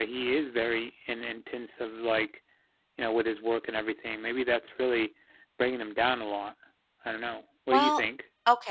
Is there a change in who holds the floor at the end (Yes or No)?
Yes